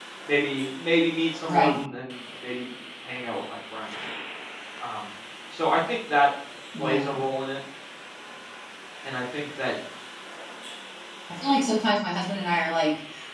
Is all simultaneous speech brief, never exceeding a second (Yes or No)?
Yes